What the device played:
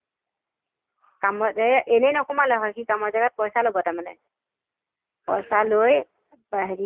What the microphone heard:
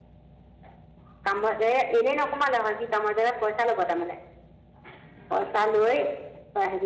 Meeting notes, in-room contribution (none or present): none